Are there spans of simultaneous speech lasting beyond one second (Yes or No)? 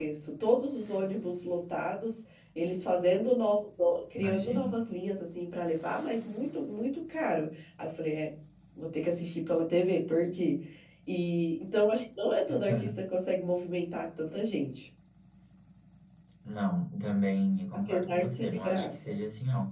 Yes